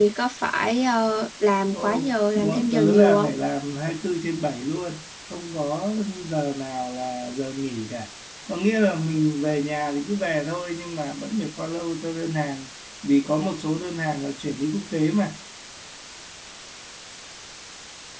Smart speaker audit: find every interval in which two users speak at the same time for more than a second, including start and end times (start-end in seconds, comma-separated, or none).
1.7-3.3